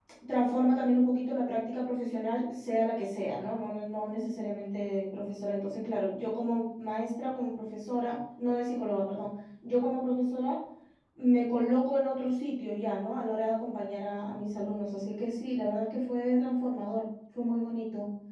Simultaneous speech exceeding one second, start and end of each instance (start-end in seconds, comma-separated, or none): none